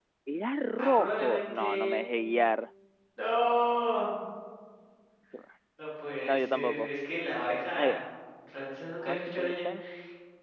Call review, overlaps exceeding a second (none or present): present